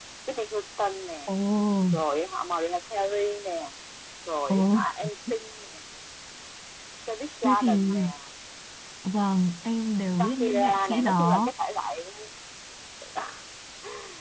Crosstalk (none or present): present